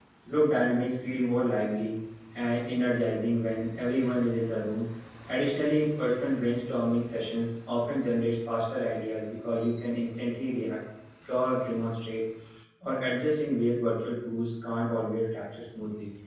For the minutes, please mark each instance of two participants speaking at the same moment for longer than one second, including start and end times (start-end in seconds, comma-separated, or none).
none